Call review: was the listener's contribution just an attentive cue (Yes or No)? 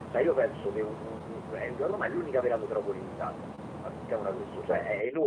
Yes